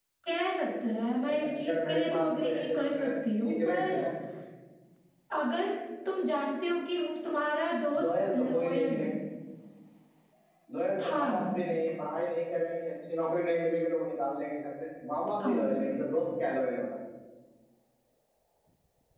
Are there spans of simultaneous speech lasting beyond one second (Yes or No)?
Yes